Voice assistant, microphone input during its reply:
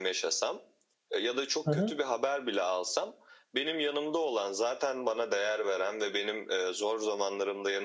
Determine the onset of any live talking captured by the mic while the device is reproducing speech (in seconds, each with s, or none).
1.6 s